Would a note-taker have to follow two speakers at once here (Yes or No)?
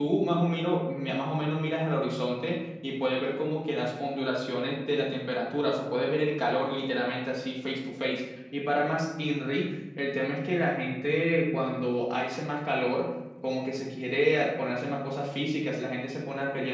No